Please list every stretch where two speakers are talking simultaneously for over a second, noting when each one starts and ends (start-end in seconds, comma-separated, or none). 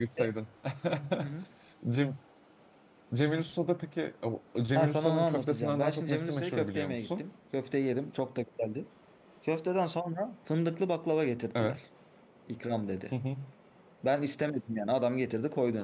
4.7-7.2